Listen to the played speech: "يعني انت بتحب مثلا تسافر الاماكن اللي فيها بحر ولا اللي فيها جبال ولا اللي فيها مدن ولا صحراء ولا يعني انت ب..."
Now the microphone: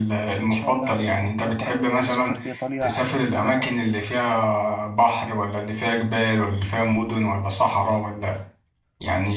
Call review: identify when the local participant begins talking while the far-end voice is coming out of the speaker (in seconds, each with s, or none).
0.4 s